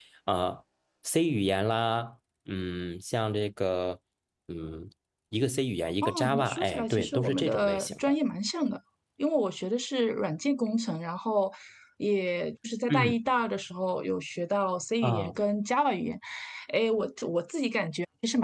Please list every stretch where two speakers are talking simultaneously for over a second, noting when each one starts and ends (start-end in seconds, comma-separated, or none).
6.0-8.1